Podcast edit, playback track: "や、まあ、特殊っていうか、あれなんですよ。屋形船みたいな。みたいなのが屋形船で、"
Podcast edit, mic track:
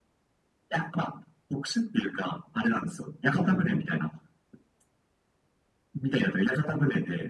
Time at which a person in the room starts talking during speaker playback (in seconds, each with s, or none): 3.3 s